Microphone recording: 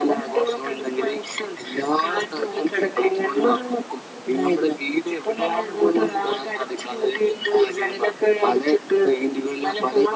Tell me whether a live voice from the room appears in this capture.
No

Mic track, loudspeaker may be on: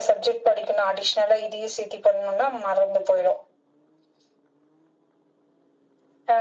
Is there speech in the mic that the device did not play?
No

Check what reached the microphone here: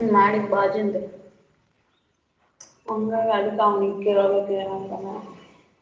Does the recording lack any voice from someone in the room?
No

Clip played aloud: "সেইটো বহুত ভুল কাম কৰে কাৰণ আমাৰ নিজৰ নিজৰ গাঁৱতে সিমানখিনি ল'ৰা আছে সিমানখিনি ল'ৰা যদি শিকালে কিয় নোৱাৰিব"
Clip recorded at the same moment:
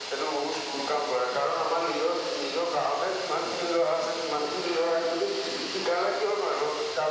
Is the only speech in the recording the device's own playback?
Yes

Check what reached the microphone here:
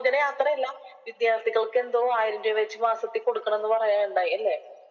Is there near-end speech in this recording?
No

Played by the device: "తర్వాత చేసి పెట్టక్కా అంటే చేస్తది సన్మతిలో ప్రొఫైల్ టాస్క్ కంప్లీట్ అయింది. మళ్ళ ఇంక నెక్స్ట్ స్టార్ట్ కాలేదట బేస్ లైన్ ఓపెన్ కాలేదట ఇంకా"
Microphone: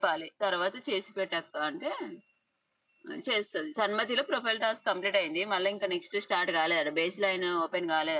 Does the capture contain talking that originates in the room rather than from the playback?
No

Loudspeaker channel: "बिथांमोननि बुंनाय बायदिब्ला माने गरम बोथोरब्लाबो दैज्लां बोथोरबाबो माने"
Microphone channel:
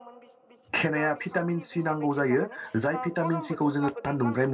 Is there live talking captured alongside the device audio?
Yes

